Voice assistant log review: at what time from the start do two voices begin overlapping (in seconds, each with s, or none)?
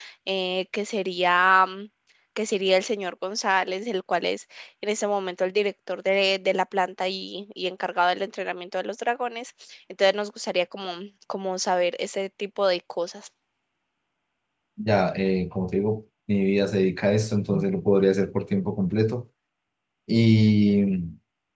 none